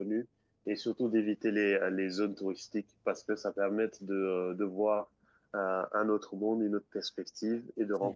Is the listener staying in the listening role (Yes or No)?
Yes